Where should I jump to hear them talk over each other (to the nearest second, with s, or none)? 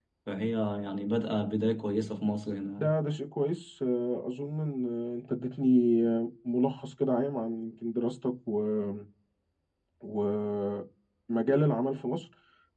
none